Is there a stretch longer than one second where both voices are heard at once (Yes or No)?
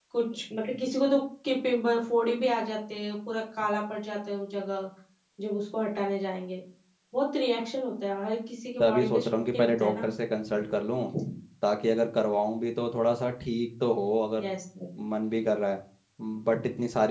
Yes